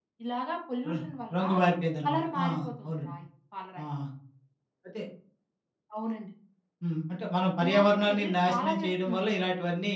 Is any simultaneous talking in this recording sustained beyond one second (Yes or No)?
Yes